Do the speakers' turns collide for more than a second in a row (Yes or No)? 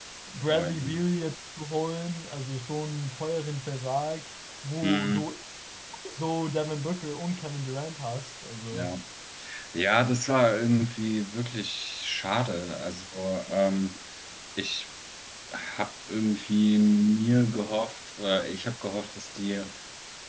No